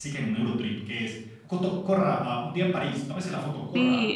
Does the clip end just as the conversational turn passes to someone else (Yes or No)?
Yes